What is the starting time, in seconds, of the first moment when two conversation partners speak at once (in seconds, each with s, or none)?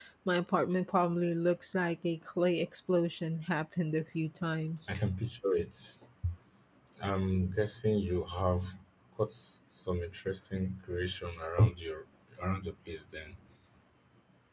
none